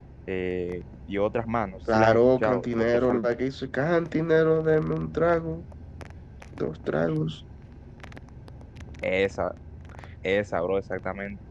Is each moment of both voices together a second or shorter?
No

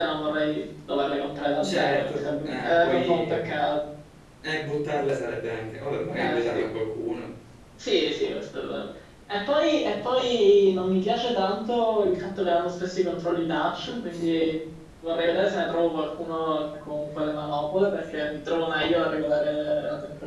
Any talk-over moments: Yes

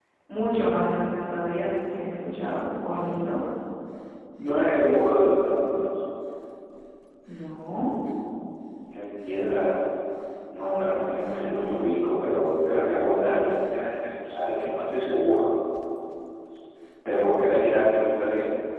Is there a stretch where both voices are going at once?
No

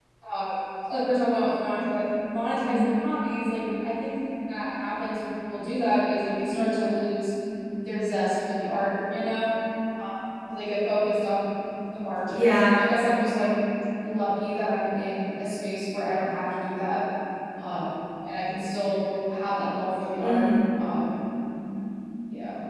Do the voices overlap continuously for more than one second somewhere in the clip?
No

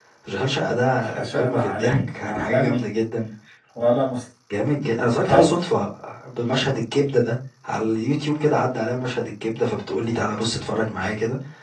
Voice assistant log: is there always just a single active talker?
No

